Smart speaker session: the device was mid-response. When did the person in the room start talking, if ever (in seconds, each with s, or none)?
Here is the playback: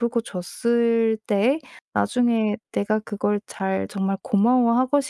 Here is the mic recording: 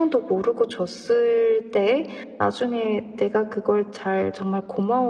none